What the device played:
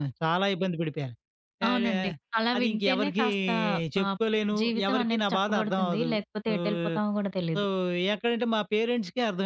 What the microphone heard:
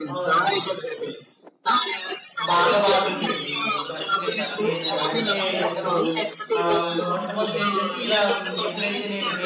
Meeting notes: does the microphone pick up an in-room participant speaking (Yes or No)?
Yes